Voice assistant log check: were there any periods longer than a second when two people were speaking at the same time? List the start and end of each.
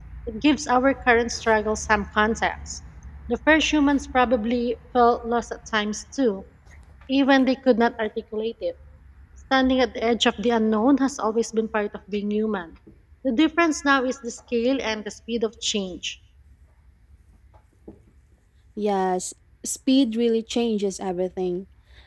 none

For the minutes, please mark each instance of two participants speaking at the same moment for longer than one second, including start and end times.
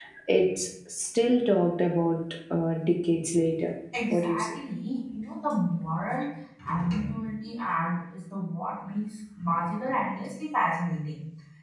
none

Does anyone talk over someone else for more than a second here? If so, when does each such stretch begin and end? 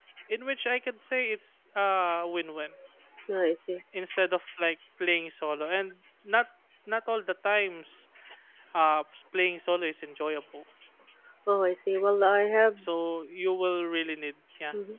none

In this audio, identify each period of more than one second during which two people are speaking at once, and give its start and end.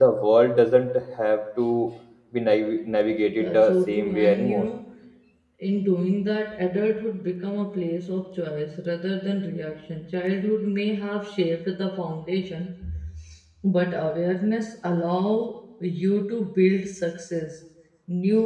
3.4-4.7

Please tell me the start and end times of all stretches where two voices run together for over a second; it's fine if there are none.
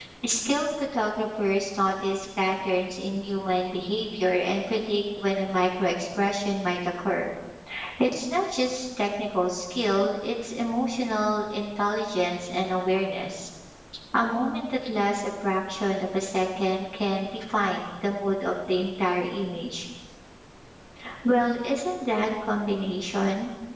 none

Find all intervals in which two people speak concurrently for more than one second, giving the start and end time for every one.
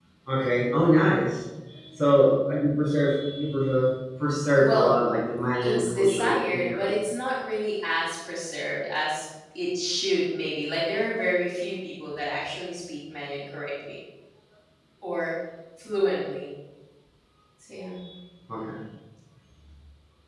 5.6-6.9

